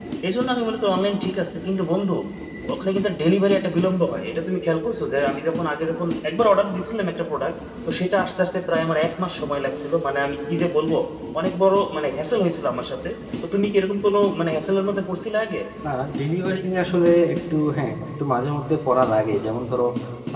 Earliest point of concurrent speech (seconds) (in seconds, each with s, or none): none